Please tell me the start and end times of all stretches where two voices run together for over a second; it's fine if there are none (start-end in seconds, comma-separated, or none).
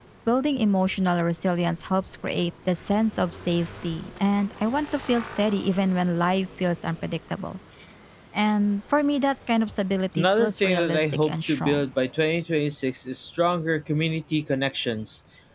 10.2-11.8